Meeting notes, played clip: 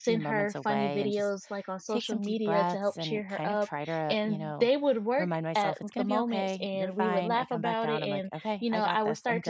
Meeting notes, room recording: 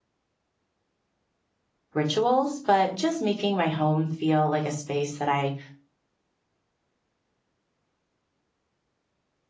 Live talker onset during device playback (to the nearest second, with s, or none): 2 s